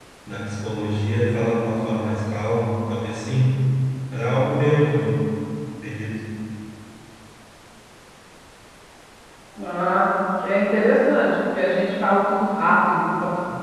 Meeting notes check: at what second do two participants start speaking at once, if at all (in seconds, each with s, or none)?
none